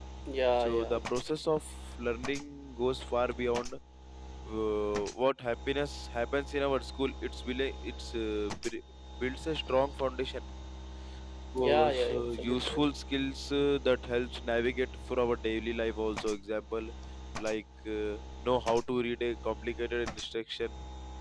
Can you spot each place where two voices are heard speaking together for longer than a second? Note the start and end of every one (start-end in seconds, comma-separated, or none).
11.6-12.8